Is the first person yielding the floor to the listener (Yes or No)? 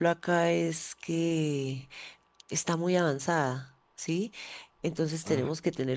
No